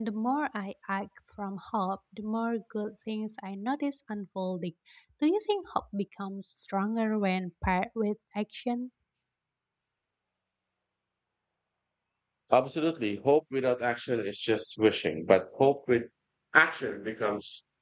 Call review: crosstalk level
none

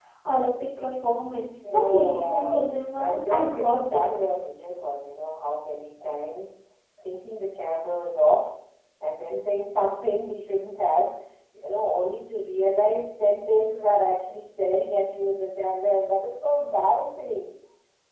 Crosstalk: present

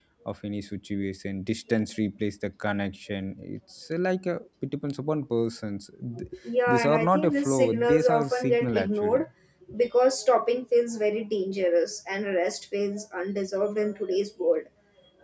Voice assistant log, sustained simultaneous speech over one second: present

